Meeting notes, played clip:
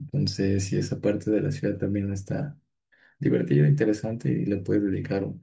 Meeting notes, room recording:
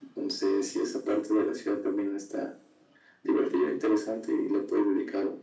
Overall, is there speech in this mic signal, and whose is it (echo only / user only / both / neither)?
echo only